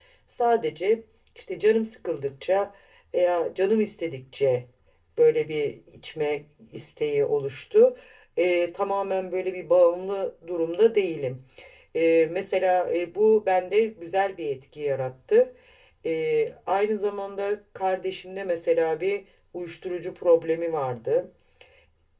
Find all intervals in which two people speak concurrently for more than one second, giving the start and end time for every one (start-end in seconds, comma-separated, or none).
none